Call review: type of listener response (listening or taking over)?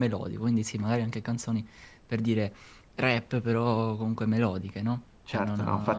taking over